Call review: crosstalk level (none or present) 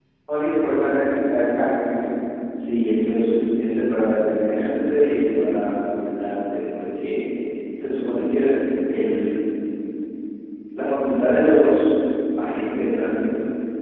none